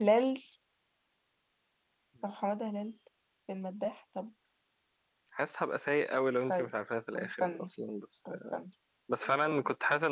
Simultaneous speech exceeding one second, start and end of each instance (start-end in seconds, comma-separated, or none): none